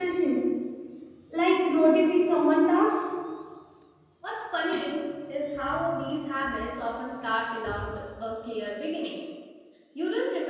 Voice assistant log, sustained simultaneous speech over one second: none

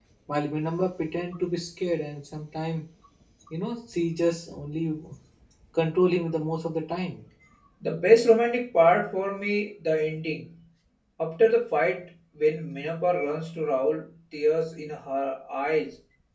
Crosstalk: none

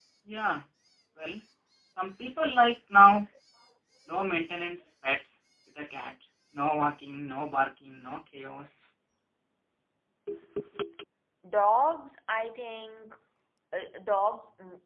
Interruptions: none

